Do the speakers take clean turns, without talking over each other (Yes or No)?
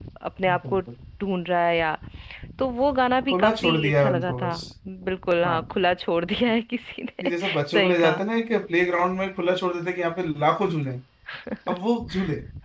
No